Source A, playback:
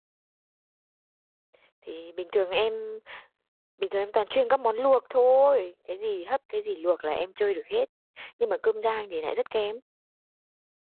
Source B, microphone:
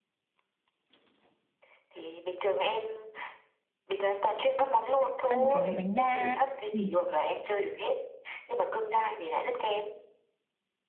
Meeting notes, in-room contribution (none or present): present